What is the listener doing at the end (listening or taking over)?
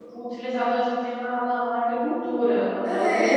taking over